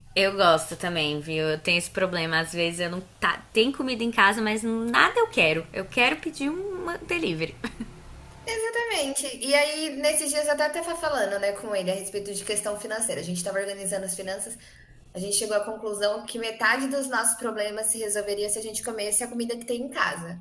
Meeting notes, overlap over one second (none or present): none